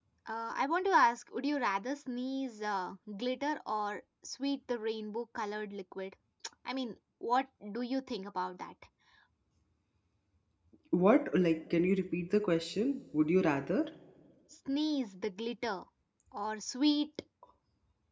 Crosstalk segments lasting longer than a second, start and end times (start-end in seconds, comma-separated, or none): none